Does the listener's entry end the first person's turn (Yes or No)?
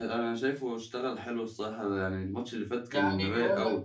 Yes